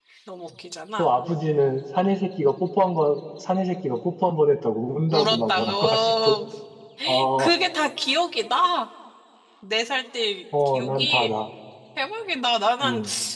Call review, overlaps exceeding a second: present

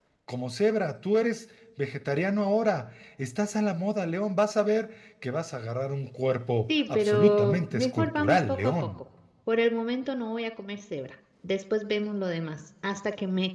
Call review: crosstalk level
present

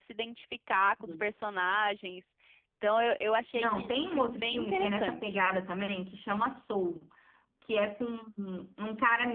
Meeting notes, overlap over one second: present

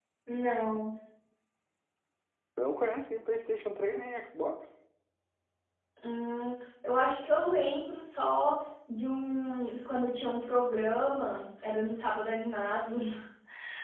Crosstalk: none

